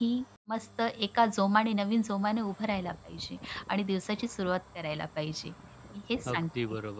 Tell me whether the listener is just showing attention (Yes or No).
No